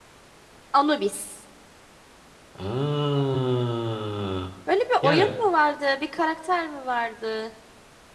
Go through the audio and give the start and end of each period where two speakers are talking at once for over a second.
none

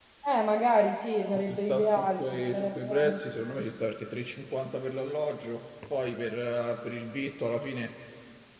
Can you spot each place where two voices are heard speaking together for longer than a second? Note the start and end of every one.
1.4-3.2

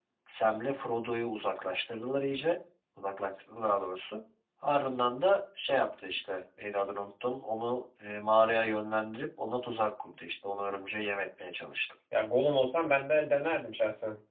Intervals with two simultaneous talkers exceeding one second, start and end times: none

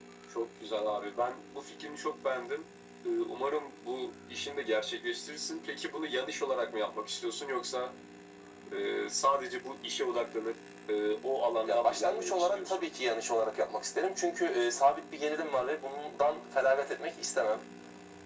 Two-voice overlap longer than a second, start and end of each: 11.6-12.9

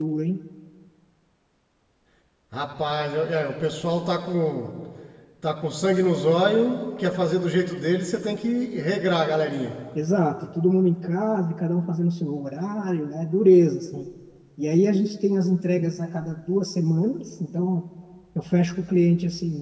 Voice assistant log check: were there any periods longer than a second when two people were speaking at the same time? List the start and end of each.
none

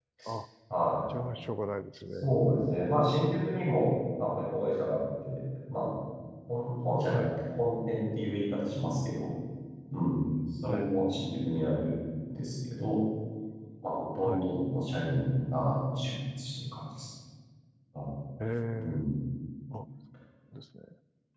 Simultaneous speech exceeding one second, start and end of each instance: none

